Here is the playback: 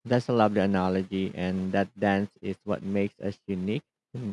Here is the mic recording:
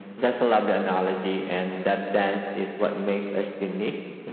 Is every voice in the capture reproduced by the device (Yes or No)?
Yes